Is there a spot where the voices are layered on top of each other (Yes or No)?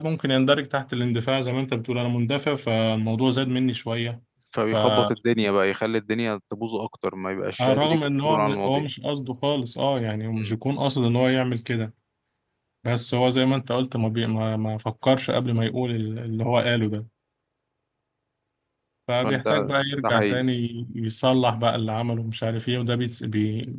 Yes